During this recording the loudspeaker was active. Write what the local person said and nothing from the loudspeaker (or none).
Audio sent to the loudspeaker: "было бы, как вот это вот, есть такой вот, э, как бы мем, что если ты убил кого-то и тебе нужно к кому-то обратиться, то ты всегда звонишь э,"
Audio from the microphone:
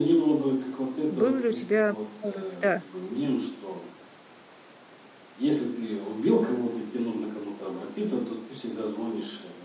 Был ли у тебя порыв? Да.